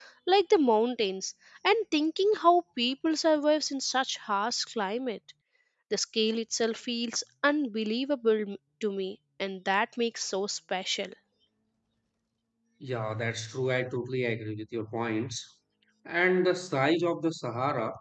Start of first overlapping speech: none

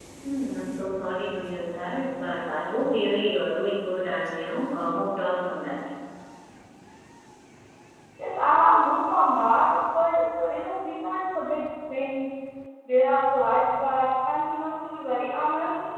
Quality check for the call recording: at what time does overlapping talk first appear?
none

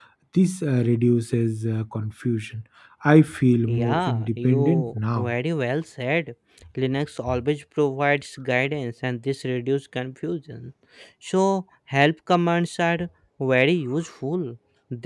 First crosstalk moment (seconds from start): 3.7 s

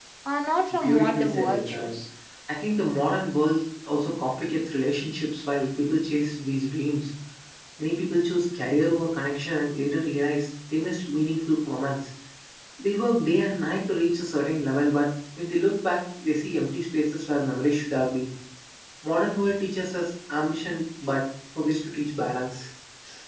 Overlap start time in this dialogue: 0.8 s

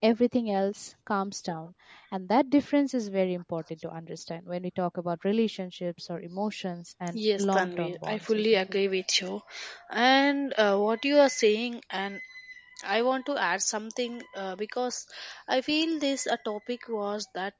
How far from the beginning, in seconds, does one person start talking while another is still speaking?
7.1 s

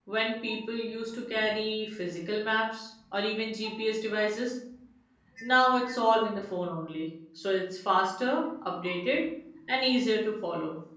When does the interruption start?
none

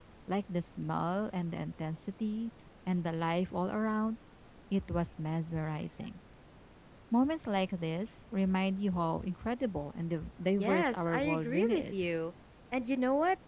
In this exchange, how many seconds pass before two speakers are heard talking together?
10.6 s

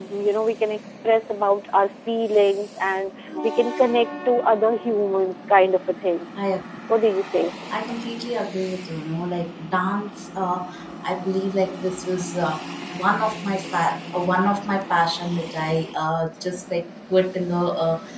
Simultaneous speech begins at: none

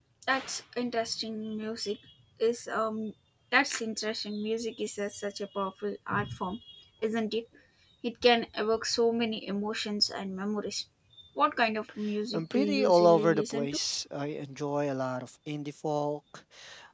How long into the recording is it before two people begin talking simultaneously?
12.3 s

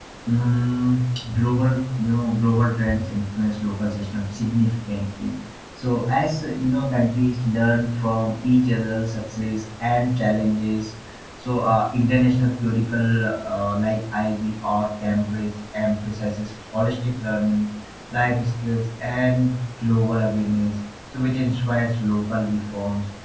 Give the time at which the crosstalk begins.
none

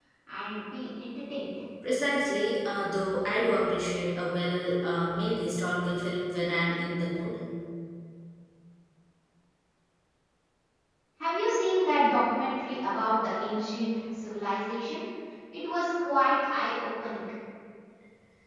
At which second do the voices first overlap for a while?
none

